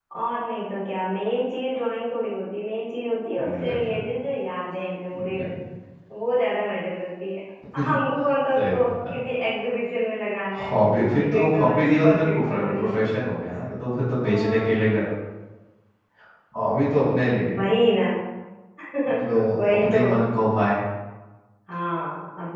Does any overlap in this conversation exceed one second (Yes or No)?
Yes